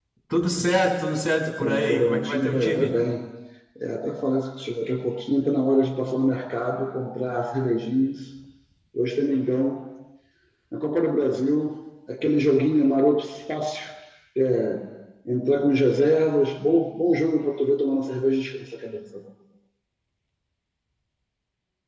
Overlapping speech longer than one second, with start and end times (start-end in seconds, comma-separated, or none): 1.6-2.9